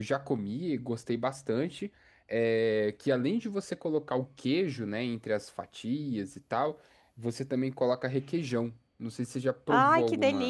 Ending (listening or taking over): taking over